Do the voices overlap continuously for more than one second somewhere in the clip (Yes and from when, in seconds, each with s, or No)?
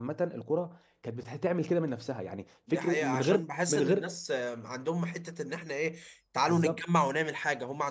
Yes, from 2.7 s